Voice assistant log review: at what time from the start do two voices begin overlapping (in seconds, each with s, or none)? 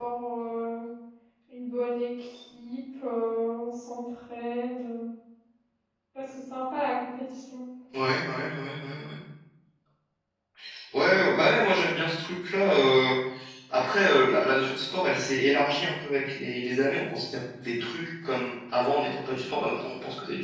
none